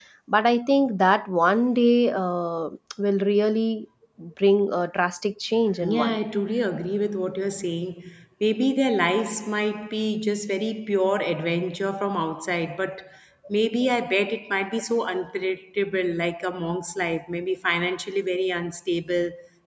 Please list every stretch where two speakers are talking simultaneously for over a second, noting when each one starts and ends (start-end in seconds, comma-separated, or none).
none